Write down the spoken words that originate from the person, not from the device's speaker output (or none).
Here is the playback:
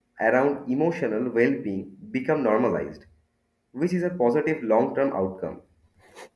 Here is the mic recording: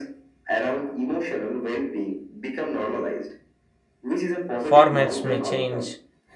formats may change,